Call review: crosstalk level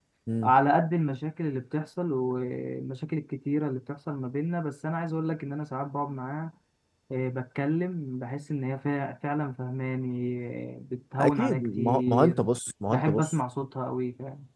present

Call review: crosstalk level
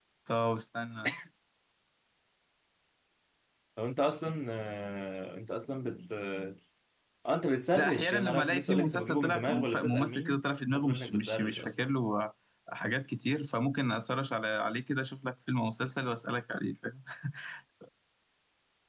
present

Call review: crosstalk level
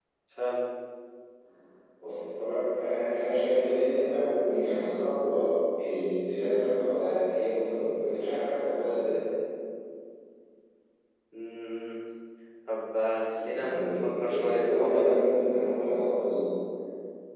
present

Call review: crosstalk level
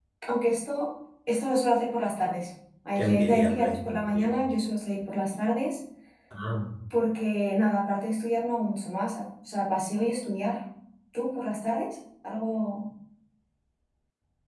present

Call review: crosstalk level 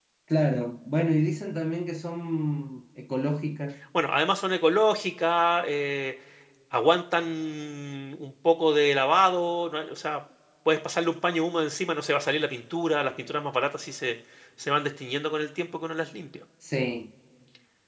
none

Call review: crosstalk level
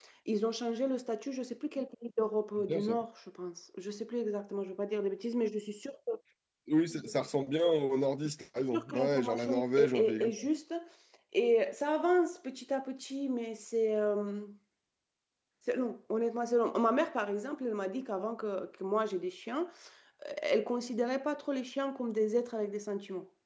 present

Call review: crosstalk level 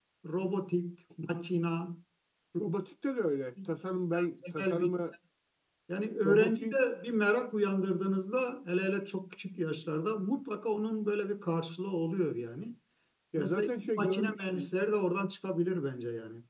present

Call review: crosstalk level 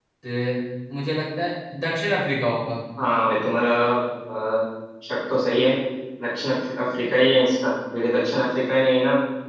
none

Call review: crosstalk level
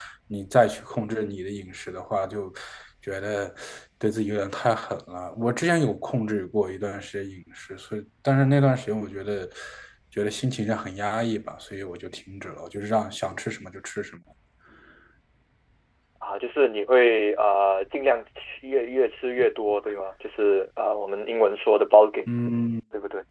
none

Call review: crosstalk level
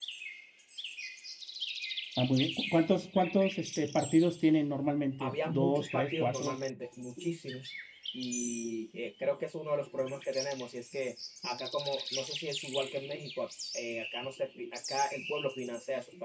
present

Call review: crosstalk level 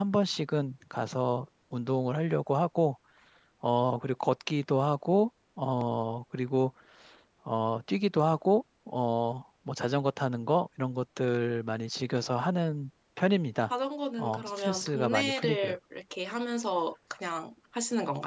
present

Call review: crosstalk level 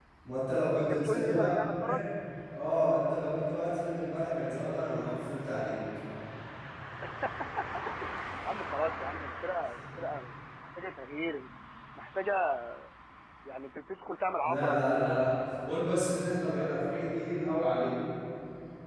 present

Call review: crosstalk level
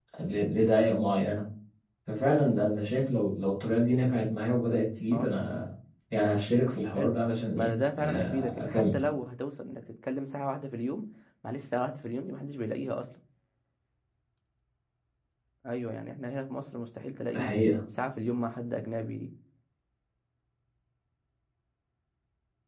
present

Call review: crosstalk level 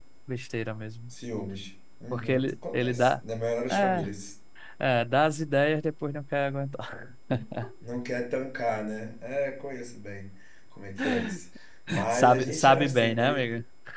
present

